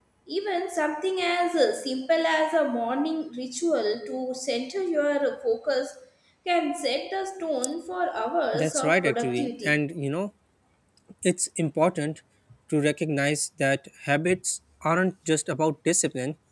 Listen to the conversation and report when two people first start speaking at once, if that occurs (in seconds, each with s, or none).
8.5 s